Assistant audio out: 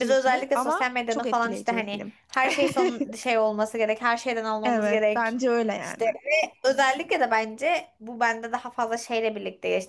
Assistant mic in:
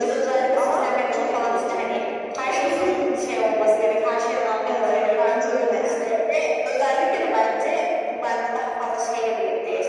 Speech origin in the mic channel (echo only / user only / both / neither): echo only